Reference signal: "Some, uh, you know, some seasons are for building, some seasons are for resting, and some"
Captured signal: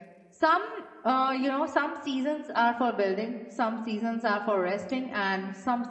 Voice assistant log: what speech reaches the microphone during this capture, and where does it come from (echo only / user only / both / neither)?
echo only